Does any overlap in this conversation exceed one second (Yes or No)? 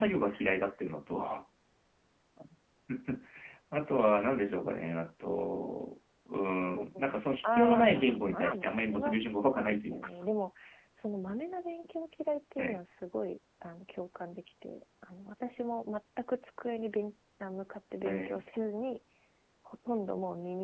Yes